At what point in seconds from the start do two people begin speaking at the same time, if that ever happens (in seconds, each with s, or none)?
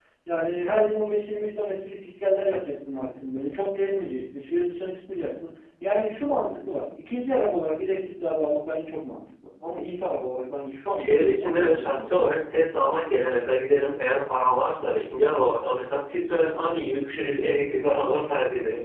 10.9 s